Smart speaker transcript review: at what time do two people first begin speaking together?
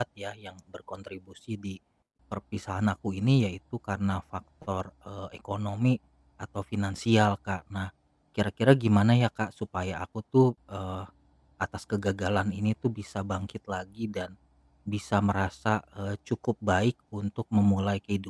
none

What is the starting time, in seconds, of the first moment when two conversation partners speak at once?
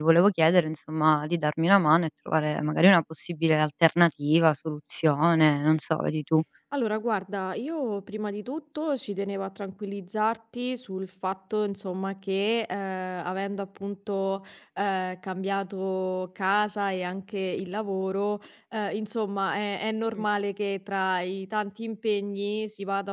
none

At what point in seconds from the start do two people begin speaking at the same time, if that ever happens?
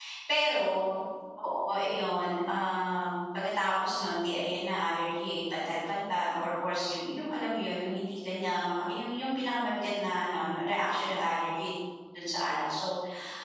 none

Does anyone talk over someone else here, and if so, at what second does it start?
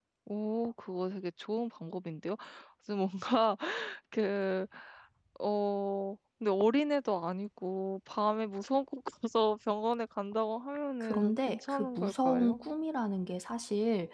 11.0 s

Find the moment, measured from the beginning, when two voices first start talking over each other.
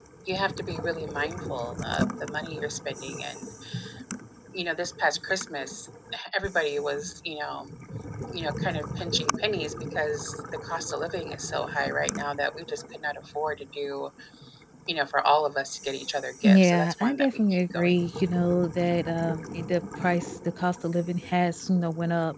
16.4 s

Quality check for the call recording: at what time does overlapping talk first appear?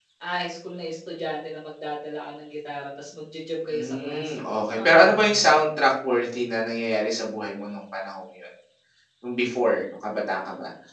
3.7 s

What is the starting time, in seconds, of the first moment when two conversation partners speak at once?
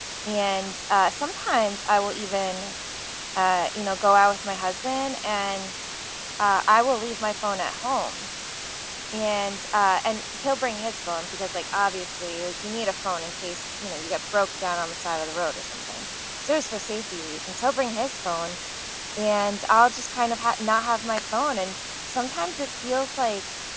none

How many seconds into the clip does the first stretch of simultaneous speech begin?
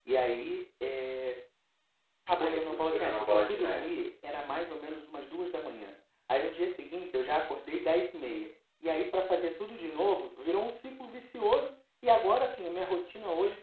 2.4 s

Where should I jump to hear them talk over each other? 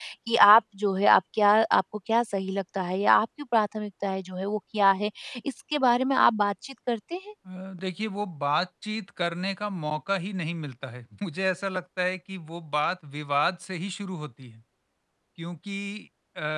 none

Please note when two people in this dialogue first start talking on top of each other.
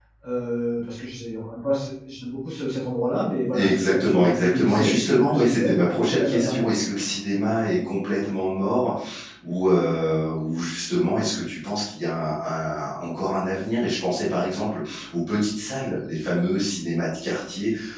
3.5 s

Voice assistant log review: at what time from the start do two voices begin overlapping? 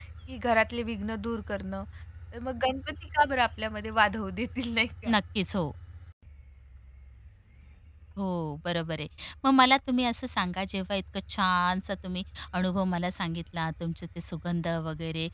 none

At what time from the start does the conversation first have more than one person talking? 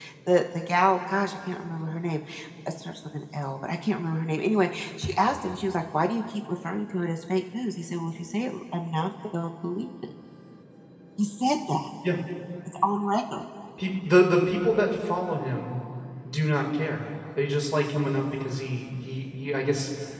none

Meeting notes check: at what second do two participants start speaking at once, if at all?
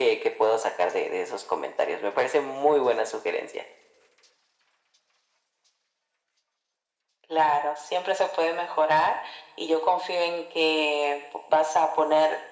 none

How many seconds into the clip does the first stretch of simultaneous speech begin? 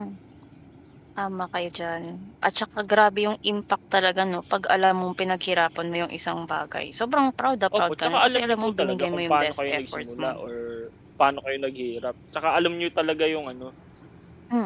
7.7 s

